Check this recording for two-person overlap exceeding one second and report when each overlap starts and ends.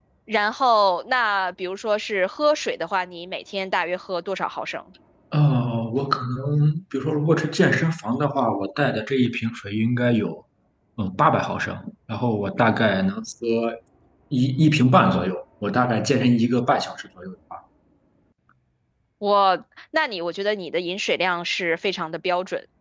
none

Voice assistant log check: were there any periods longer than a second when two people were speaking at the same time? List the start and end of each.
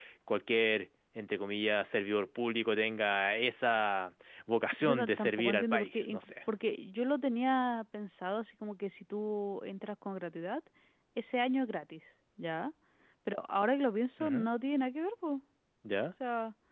4.8-6.3

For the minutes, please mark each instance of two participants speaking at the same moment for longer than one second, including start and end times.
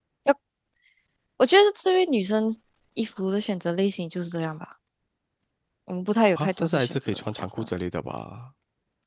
6.3-7.7

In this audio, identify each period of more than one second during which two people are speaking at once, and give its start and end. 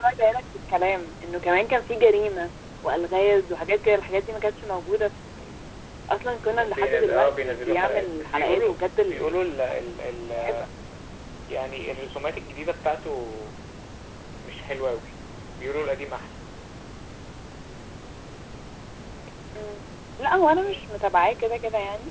6.5-8.7

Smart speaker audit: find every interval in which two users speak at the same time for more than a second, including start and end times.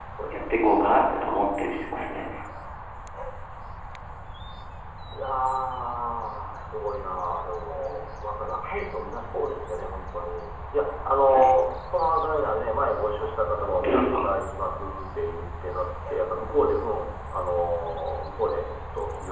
none

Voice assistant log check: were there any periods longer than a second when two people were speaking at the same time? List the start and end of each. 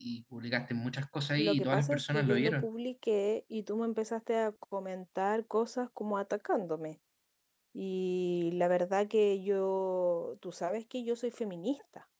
1.4-2.7

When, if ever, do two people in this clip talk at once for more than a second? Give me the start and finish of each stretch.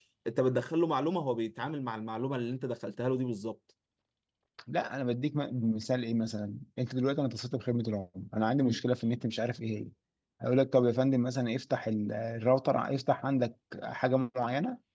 none

